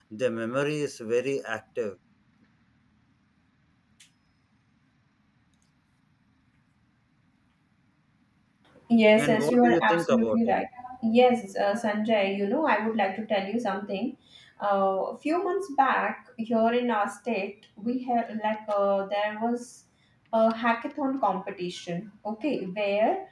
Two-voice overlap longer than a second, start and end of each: 9.2-10.5

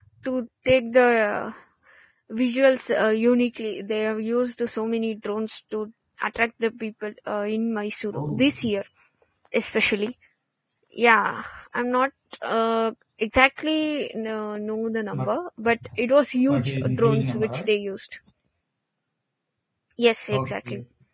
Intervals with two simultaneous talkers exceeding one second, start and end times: 16.5-17.7

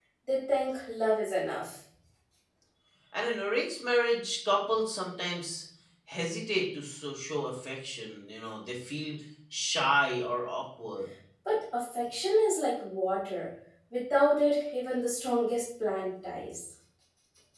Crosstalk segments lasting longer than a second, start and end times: none

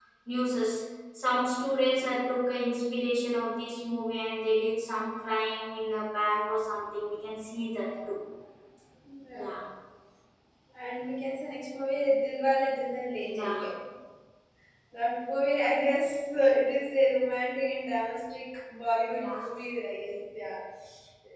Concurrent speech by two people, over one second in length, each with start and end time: none

